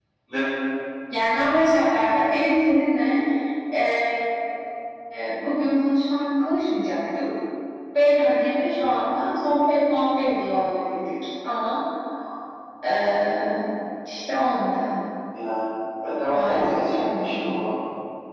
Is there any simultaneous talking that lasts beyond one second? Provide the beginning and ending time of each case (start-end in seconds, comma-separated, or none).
16.3-17.5